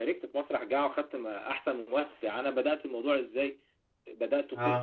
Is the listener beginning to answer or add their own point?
No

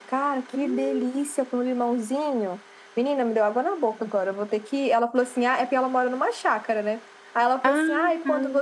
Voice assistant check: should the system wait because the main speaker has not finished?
Yes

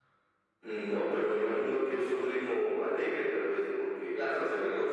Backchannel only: No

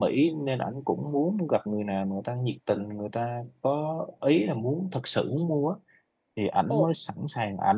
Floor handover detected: No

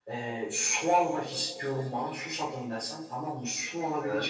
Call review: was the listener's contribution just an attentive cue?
Yes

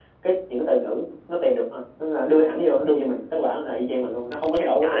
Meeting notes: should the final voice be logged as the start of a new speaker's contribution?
Yes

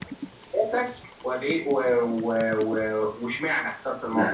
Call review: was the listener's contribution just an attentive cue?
No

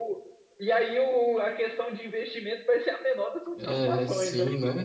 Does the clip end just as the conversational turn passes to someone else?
Yes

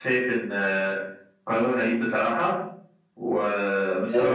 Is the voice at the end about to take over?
No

